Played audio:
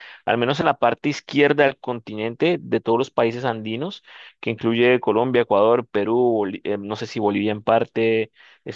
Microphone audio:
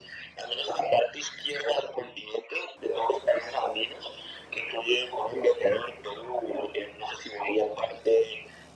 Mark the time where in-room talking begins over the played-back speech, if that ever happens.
none

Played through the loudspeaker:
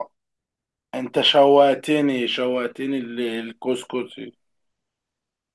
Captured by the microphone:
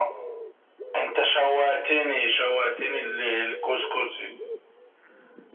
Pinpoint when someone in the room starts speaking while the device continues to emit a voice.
none

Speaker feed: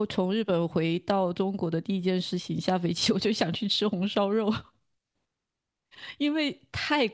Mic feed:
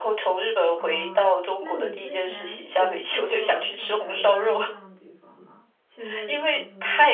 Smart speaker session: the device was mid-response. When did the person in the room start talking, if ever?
0.7 s

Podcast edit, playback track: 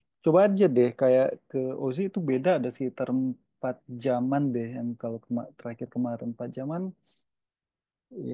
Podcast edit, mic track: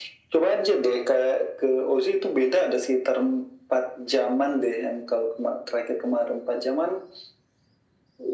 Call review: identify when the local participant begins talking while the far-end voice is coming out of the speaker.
none

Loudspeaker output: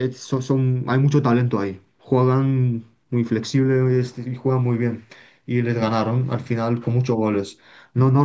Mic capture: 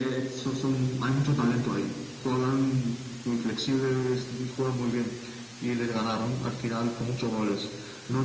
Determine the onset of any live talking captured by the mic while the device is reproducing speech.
none

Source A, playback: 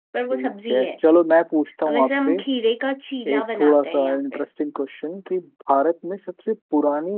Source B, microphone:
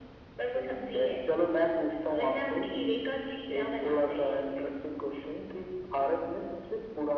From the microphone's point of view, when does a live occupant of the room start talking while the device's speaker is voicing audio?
none

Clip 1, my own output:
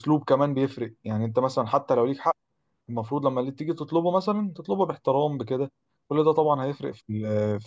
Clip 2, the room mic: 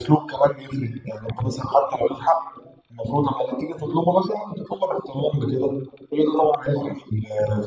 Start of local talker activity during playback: none

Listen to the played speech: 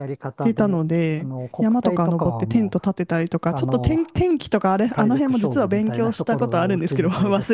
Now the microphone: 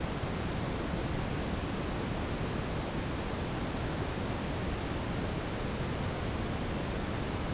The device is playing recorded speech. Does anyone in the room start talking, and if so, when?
none

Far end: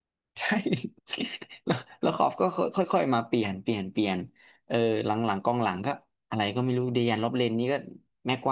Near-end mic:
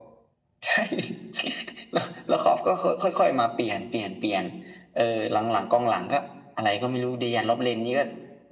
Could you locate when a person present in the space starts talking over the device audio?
none

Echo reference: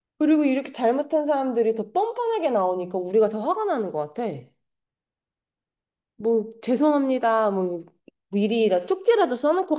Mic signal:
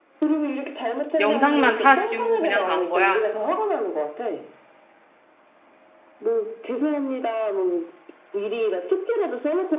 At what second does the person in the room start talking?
1.2 s

